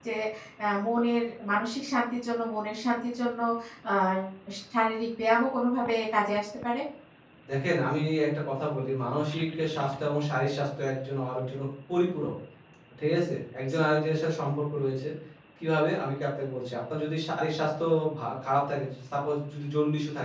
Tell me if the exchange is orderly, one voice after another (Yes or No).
Yes